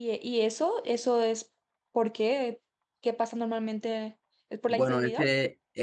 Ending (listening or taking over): taking over